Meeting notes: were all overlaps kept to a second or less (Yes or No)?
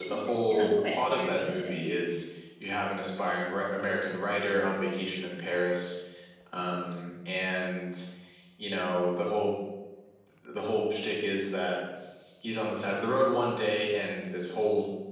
No